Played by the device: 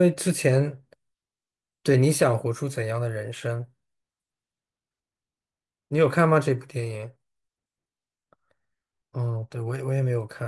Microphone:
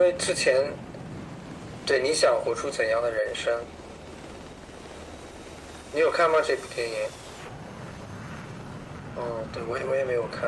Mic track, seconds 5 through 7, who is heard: echo only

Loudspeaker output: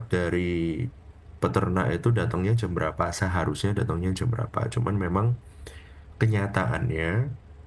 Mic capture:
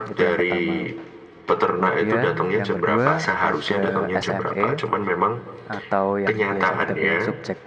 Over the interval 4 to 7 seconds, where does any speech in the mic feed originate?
both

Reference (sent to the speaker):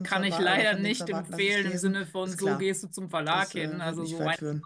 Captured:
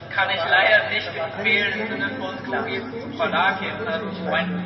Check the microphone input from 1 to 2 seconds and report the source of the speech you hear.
both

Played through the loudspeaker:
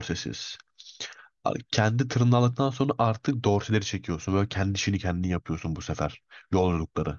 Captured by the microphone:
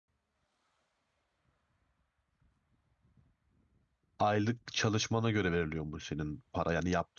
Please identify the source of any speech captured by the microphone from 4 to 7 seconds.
user only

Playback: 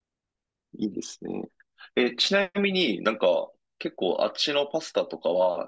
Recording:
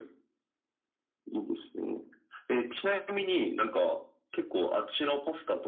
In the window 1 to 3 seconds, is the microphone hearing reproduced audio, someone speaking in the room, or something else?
echo only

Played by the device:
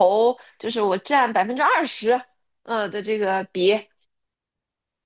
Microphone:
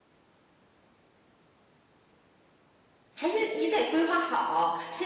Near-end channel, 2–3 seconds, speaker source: neither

